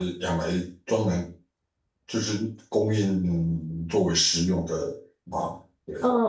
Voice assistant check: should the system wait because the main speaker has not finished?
No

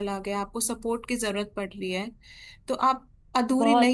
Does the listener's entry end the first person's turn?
No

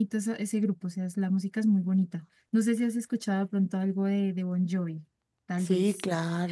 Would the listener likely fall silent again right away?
No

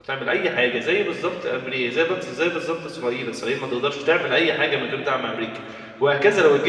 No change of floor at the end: Yes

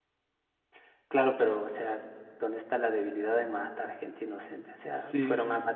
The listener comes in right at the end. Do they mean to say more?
No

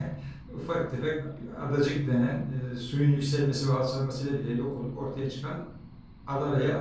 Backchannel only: Yes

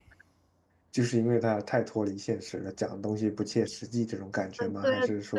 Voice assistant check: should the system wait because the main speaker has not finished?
No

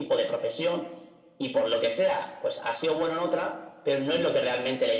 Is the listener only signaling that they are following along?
Yes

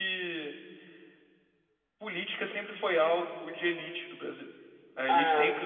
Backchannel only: Yes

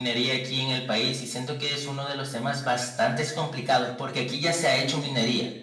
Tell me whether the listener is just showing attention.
Yes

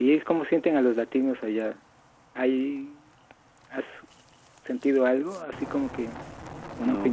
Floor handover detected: Yes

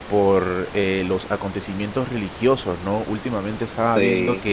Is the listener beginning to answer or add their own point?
No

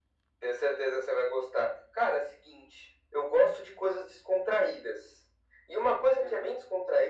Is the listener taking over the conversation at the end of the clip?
No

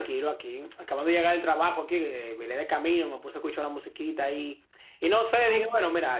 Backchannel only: Yes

